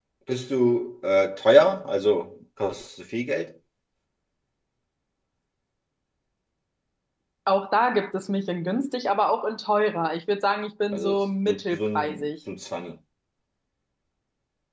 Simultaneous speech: Yes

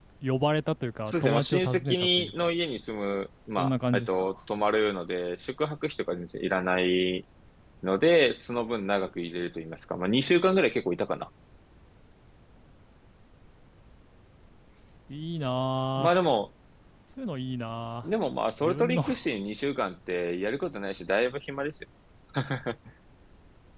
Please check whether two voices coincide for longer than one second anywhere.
Yes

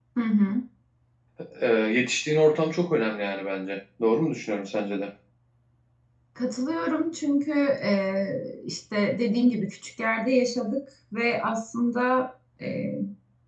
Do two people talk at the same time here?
No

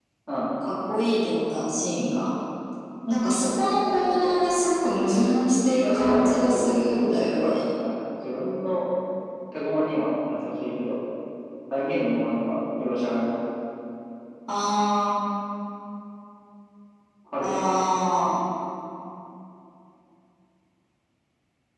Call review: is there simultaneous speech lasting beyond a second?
Yes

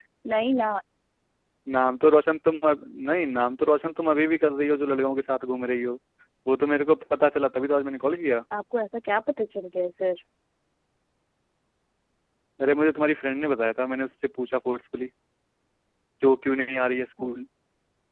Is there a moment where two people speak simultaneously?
No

